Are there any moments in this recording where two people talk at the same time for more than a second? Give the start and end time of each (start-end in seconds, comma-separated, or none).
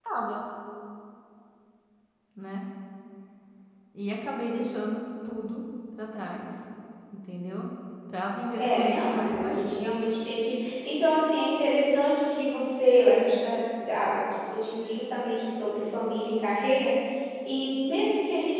8.6-9.9